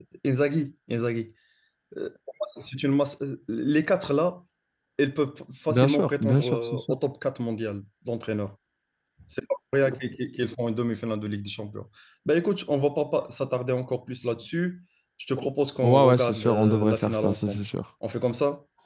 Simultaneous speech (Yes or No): Yes